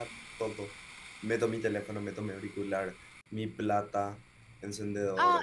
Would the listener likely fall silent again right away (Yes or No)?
No